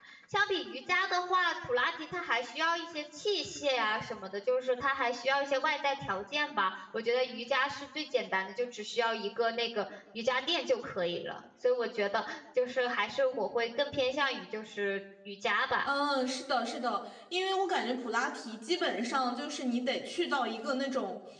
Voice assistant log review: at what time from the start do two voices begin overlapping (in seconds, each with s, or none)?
none